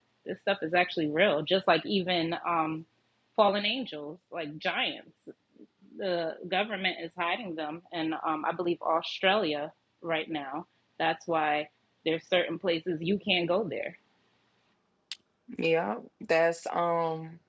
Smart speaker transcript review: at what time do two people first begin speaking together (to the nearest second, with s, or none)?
none